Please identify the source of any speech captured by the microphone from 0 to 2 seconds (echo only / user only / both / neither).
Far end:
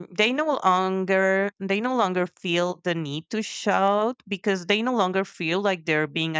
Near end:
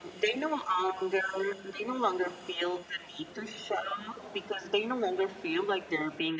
echo only